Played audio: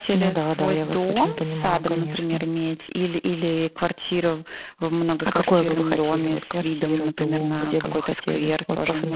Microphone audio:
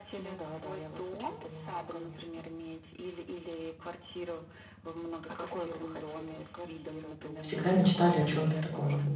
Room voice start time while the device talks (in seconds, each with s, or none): 7.4 s